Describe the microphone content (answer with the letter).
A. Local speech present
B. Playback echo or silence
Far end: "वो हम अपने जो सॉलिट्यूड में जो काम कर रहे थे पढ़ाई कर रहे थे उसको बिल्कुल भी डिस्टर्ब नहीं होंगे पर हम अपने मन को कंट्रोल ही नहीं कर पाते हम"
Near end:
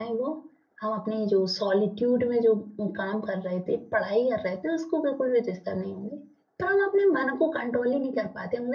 B